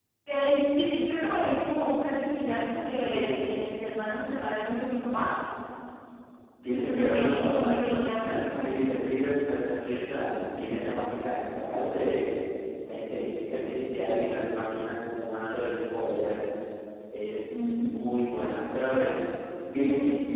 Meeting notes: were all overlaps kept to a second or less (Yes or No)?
No